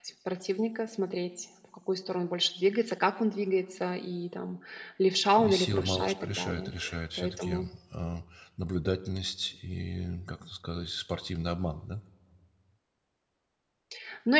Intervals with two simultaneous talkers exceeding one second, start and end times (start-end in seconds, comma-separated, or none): 5.4-6.7